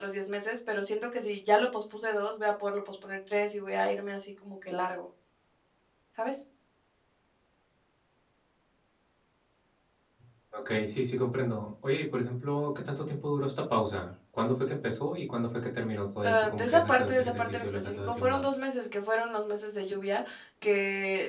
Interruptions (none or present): present